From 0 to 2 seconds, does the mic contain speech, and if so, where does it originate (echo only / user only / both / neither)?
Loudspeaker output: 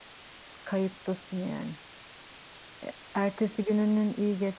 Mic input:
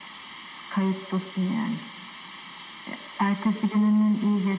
echo only